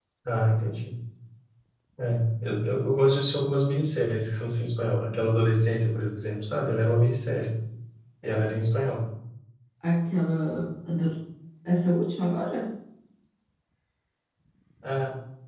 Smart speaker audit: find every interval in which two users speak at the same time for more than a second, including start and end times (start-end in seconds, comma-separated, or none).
none